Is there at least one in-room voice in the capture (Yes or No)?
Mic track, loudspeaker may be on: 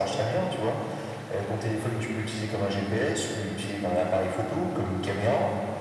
Yes